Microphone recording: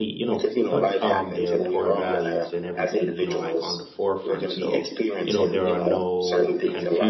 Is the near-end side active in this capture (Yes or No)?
Yes